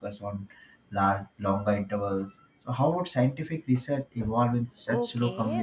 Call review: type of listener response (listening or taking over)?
taking over